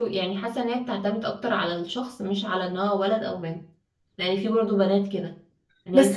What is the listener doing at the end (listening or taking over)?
taking over